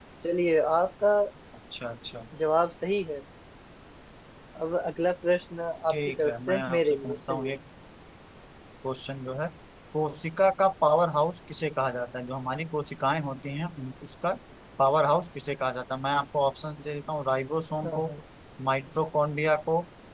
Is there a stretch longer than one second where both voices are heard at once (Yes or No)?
Yes